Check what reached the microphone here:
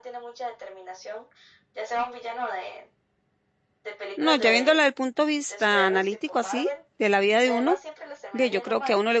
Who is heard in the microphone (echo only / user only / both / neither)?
both